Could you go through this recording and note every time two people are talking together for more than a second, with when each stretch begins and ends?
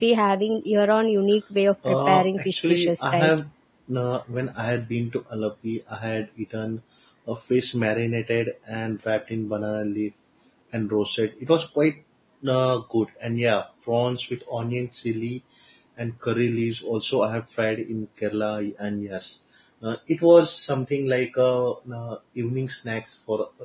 1.9-3.3

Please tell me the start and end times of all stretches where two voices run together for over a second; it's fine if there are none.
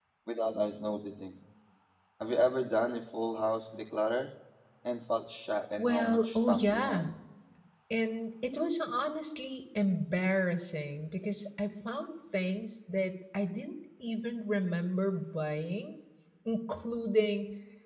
5.8-7.1

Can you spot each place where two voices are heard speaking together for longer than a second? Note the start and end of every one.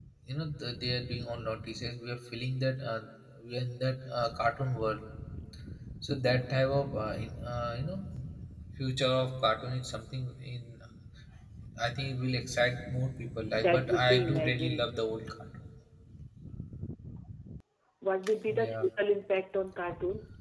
13.6-14.9

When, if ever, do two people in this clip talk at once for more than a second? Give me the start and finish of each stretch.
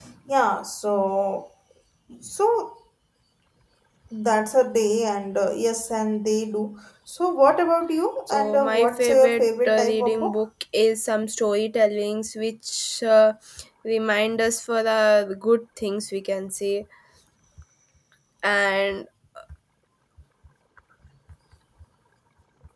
8.3-10.4

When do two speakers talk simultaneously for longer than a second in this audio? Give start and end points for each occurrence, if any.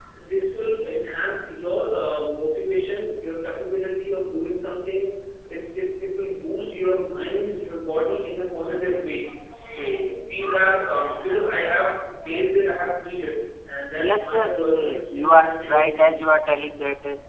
13.9-16.5

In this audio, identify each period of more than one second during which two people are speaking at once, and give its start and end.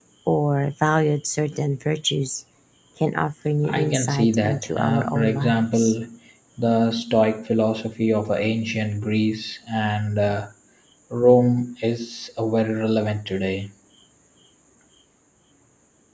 3.6-5.9

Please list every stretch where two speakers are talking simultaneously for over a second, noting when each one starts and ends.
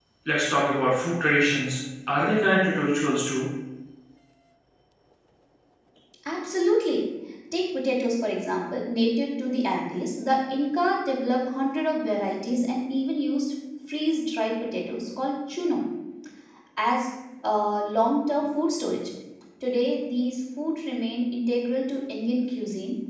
none

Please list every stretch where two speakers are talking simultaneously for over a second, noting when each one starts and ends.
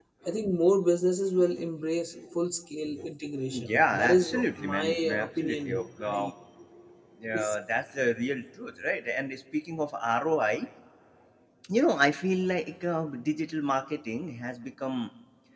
3.5-6.3

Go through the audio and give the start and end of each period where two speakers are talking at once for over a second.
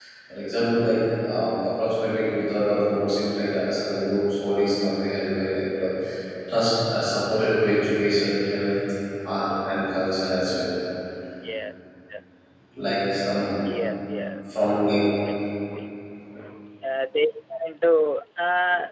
none

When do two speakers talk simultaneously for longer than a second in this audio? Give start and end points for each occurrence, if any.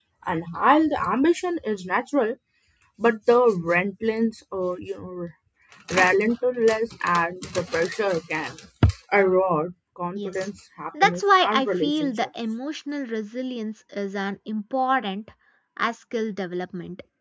11.0-12.3

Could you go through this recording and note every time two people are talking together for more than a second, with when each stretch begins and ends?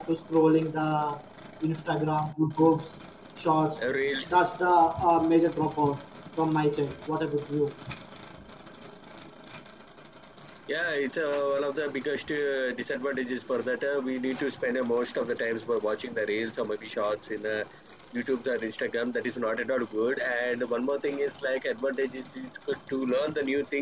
none

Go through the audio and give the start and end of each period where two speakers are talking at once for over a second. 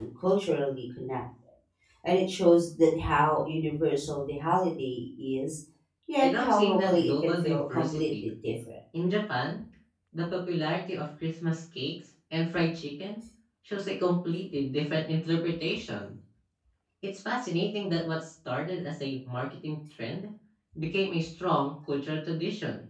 6.2-8.2

